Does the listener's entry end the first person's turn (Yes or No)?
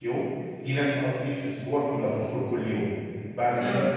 No